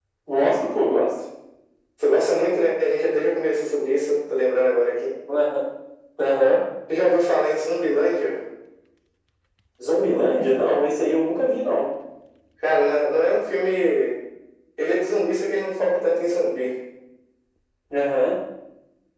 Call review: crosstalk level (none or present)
none